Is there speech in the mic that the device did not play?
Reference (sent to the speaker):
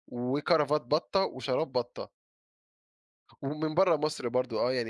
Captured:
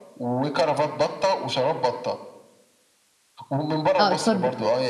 Yes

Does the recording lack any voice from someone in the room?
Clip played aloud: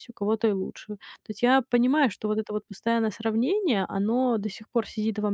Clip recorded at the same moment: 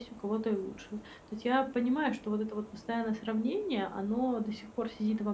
Yes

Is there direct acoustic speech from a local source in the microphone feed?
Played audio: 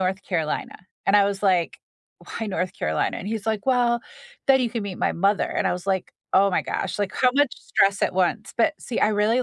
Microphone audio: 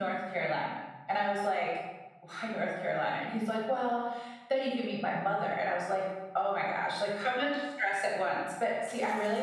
No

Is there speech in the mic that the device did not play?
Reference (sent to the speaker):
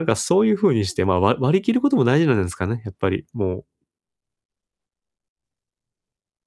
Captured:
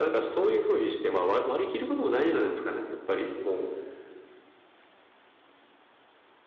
No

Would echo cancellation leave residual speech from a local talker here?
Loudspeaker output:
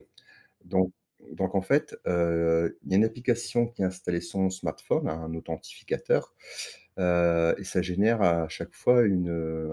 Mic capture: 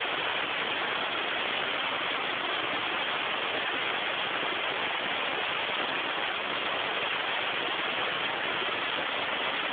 No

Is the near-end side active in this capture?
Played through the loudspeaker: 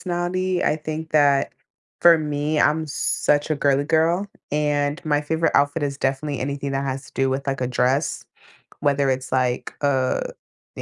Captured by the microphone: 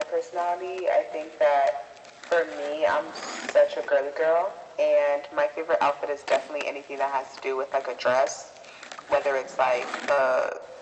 No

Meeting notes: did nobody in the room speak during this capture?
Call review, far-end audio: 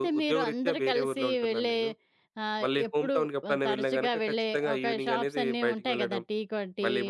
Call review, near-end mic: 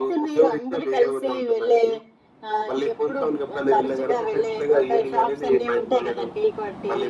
Yes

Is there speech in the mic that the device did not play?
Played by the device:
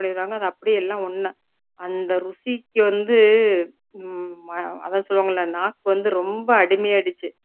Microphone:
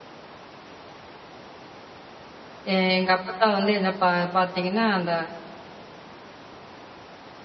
Yes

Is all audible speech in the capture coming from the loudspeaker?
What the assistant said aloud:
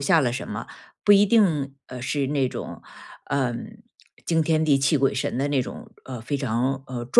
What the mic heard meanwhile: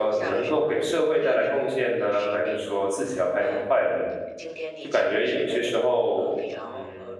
No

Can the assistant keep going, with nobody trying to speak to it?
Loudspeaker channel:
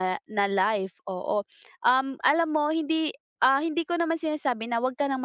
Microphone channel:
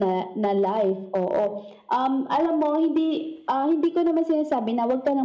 Yes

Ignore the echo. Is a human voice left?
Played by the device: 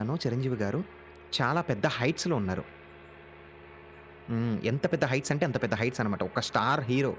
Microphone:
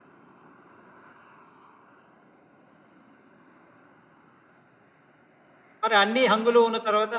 Yes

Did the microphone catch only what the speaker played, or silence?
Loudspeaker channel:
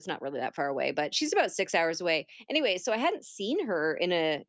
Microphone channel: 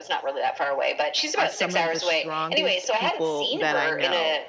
No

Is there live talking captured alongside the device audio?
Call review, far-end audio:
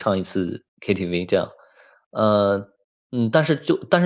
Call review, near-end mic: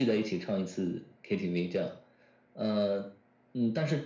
No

